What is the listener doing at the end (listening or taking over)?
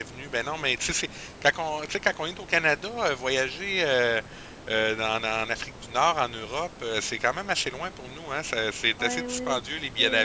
taking over